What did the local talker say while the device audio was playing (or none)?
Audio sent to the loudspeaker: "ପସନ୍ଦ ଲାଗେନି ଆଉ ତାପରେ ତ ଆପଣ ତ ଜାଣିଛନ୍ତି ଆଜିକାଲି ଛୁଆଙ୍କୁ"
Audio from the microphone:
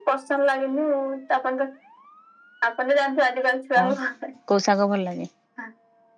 ଆଉ କୋଉ ଶାଗ ଭଲ ଲାଗେ।